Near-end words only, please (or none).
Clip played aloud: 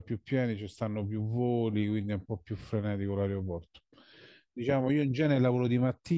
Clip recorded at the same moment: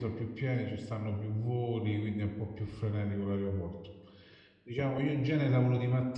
none